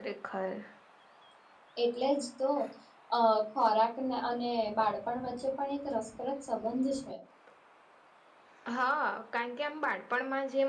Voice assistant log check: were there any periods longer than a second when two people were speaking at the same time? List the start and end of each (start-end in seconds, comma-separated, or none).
none